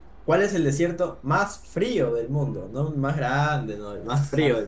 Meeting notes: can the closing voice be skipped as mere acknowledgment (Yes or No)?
No